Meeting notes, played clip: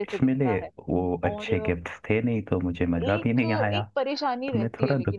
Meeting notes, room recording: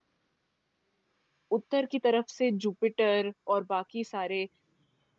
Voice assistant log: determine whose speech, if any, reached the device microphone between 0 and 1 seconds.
neither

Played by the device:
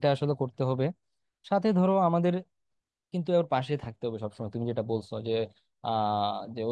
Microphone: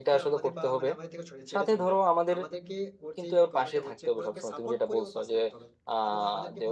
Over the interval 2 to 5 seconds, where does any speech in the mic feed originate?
both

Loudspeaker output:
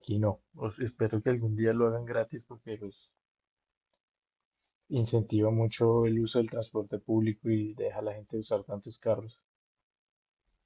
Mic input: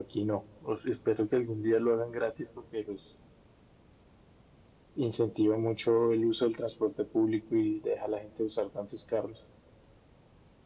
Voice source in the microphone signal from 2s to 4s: echo only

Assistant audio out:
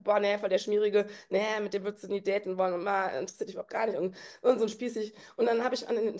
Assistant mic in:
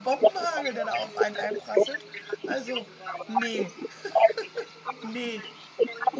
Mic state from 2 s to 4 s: both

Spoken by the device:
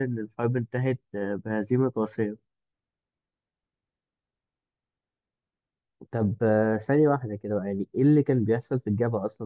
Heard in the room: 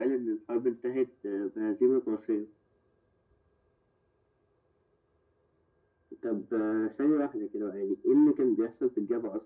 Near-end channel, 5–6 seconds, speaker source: neither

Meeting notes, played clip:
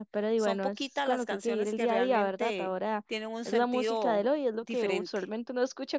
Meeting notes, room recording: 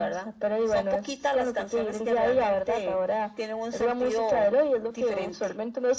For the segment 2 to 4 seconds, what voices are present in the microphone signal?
echo only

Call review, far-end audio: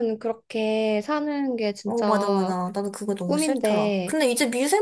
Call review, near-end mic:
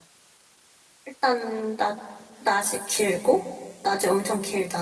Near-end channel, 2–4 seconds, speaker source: user only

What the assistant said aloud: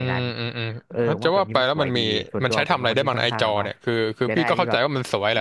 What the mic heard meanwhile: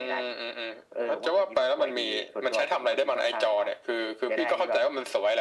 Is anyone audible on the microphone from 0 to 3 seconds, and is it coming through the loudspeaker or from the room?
echo only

